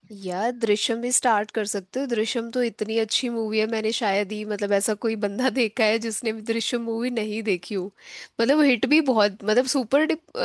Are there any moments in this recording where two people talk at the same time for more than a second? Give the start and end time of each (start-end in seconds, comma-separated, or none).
none